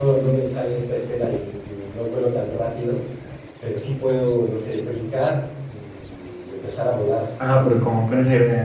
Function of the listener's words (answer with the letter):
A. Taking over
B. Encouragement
A